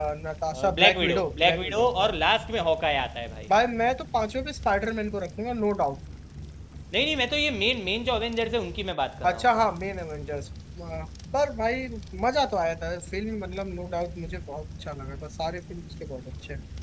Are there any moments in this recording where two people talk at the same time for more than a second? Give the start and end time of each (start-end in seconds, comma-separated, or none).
0.8-2.1